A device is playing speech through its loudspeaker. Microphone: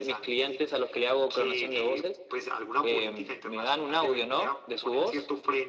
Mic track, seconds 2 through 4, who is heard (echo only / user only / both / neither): echo only